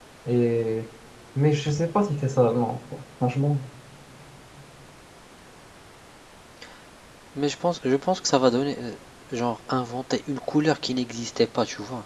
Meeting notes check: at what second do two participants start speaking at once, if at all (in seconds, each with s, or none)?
none